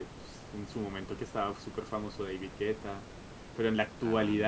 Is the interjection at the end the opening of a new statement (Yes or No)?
No